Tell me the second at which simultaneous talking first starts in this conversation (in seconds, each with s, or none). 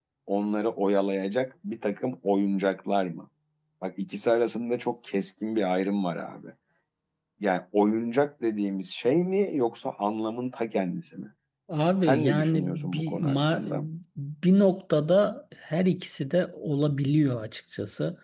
12.0 s